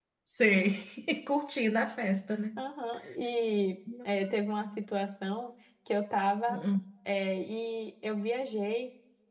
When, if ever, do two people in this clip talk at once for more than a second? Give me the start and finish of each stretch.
none

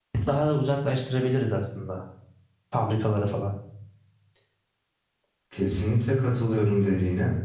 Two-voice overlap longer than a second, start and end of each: none

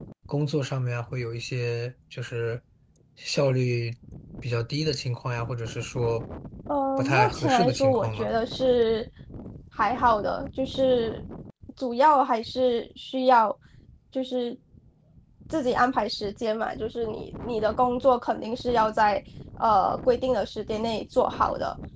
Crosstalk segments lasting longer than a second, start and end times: 7.0-8.3

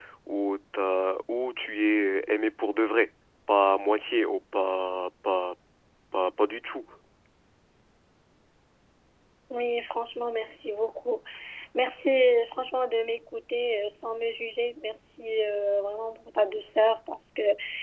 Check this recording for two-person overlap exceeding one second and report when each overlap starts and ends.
none

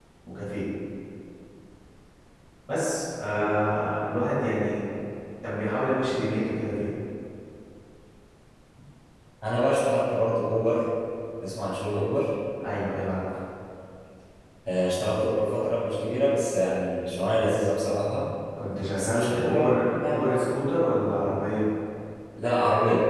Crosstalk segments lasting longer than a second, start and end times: 18.9-20.3

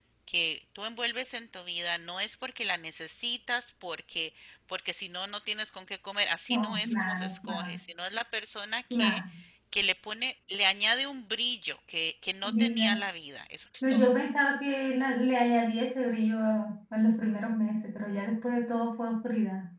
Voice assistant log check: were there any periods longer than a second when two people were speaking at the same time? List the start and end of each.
6.5-7.8

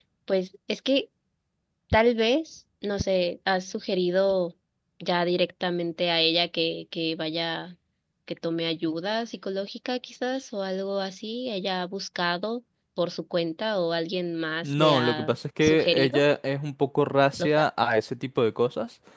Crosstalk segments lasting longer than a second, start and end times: 14.6-16.2

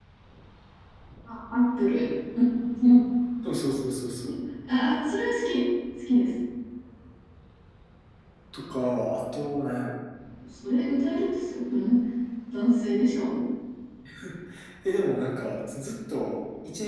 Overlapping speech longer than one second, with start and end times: none

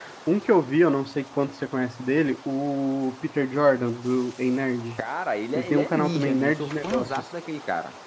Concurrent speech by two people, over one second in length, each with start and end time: 5.5-7.2

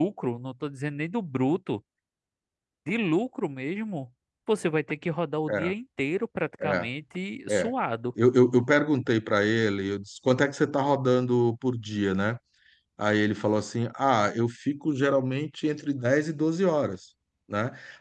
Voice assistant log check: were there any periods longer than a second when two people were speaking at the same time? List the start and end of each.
none

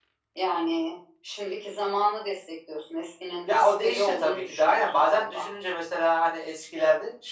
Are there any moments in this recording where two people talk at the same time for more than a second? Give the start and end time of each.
3.5-5.5

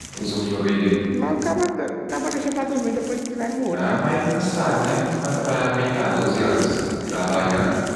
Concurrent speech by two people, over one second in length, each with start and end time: none

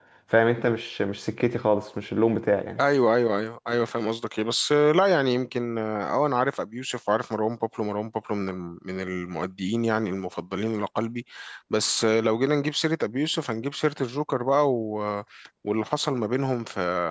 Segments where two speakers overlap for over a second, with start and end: none

